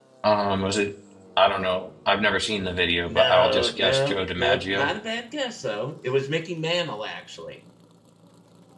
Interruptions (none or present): present